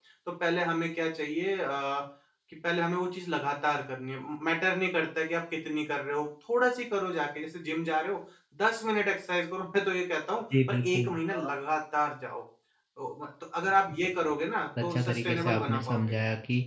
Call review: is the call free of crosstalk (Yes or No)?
No